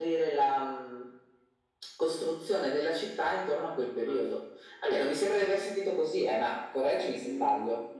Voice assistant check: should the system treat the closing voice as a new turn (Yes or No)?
Yes